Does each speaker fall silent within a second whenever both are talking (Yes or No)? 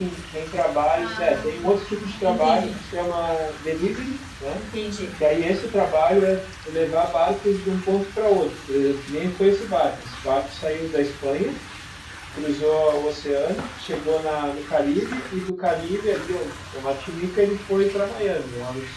No